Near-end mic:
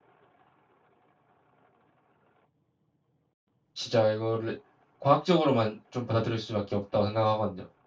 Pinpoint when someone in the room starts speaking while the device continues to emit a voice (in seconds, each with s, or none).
3.7 s